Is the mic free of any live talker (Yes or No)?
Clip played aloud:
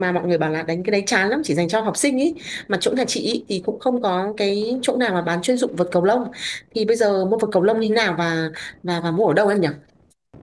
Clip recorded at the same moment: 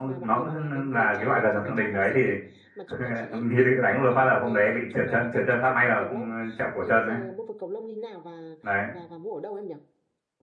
No